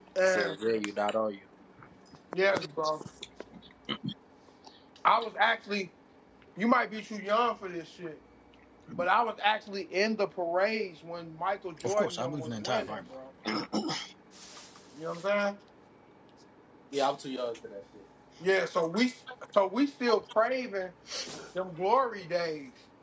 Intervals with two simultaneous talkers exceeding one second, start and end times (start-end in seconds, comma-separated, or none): 11.8-13.1